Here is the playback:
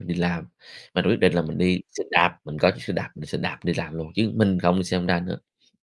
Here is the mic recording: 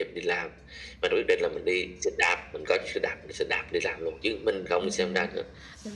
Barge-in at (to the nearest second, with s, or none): 5 s